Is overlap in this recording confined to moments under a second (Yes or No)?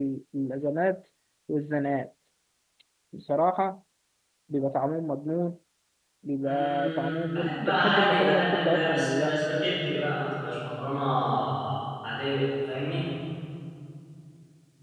No